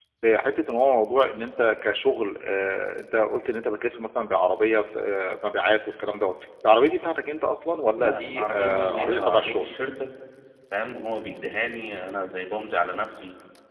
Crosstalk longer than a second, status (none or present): present